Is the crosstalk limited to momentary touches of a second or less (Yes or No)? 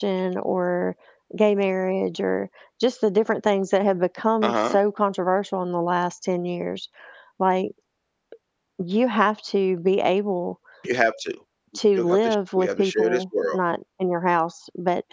No